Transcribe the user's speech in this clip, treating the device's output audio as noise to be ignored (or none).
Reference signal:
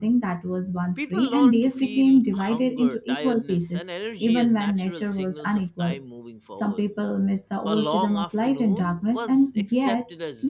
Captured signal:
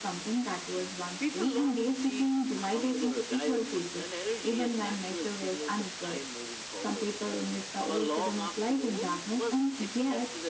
none